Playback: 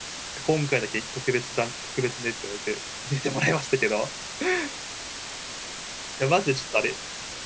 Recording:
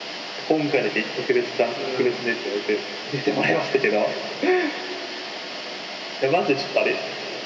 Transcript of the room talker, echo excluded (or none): うん。